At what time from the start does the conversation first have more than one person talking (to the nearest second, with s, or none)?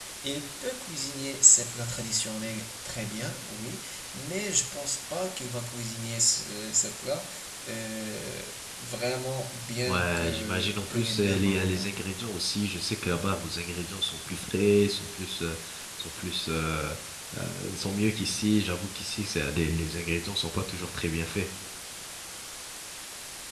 10 s